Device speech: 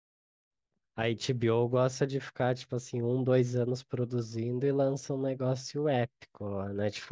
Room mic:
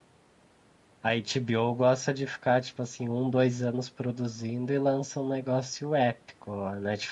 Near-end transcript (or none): none